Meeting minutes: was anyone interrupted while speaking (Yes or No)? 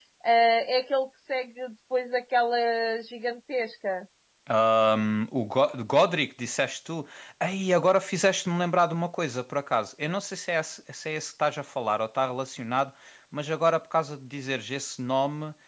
No